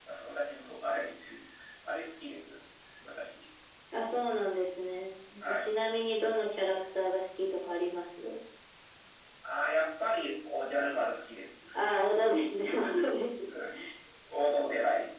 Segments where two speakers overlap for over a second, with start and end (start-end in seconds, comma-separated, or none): none